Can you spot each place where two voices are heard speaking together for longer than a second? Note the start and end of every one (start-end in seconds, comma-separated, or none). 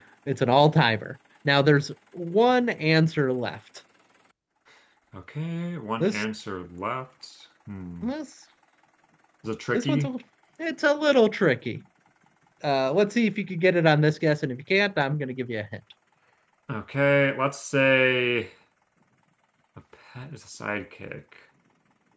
none